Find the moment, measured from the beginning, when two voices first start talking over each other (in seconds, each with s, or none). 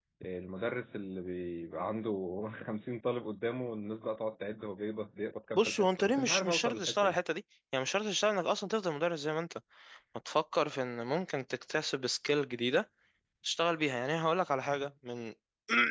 5.5 s